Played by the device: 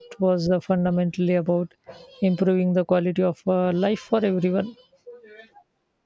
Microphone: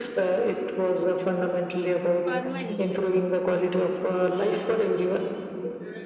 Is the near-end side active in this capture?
Yes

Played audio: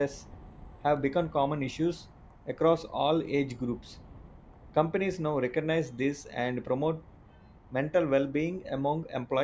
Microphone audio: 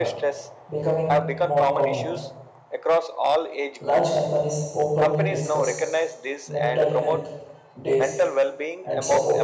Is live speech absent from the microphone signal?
No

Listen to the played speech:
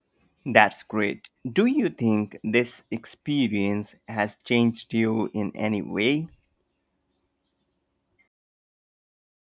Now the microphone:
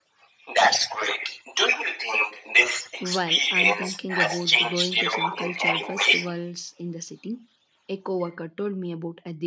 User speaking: Yes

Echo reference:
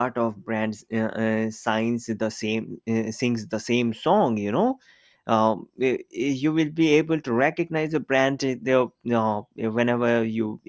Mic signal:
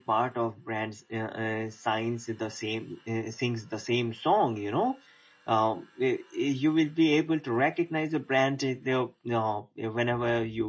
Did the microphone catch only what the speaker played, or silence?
Yes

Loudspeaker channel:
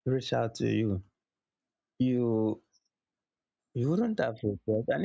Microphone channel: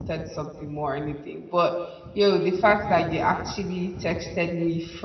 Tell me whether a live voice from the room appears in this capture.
Yes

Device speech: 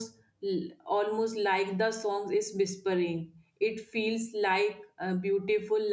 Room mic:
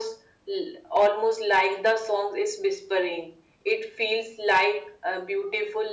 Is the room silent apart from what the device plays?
Yes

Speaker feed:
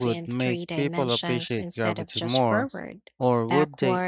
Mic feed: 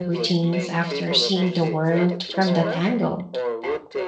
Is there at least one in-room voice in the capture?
Yes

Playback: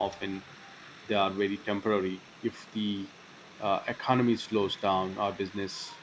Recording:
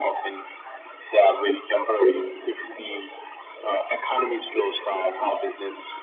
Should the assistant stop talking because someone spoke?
No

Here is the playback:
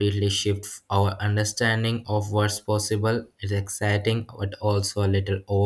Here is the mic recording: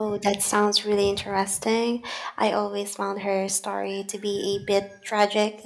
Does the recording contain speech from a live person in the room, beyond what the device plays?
Yes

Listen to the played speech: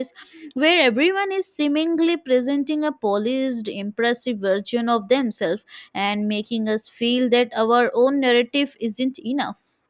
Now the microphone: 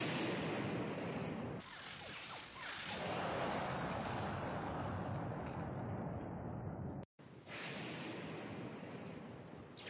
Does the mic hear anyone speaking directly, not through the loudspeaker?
No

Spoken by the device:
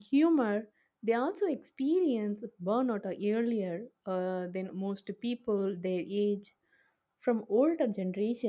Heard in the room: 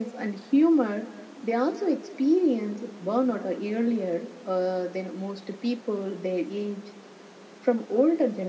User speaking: No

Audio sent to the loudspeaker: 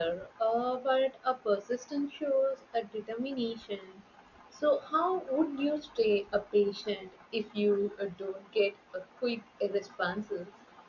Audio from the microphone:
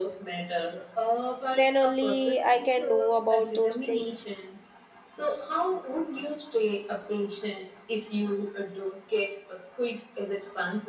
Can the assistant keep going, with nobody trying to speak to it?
No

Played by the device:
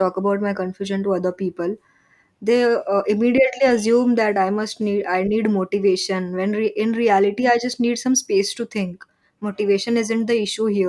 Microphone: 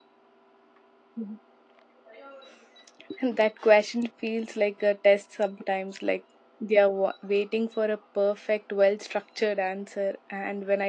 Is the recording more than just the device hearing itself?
Yes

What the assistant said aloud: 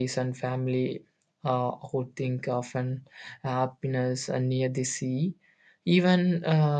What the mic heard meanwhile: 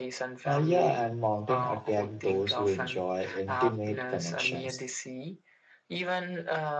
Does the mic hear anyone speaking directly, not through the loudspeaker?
Yes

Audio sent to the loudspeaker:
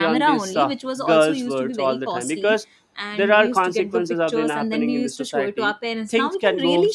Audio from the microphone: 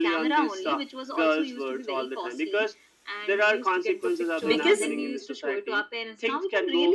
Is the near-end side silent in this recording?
No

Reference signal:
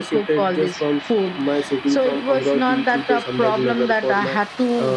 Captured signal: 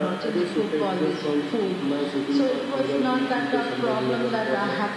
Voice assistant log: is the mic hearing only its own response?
Yes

